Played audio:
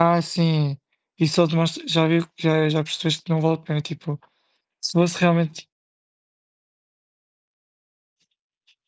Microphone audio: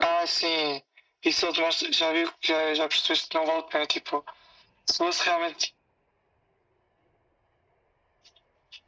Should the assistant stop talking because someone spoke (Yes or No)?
No